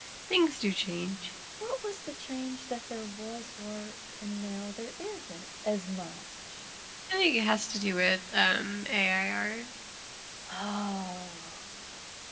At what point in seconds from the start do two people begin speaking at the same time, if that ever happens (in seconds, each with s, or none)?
none